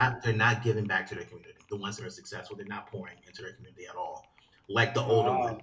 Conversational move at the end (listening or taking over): listening